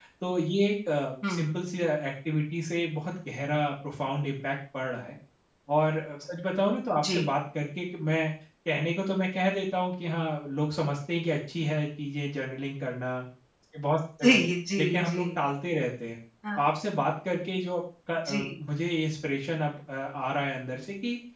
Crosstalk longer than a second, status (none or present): none